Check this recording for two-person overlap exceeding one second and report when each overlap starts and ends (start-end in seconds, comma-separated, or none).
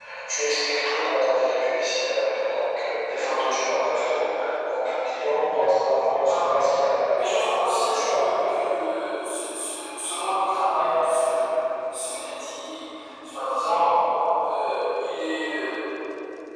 none